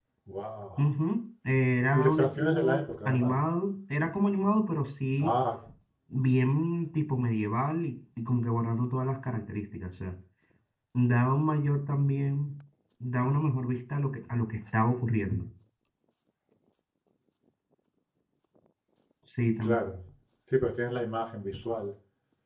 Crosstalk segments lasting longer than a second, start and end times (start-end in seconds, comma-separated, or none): 1.9-3.3